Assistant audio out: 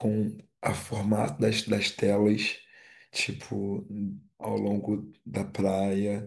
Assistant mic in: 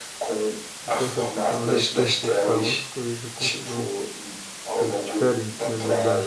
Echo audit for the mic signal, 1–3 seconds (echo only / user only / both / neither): both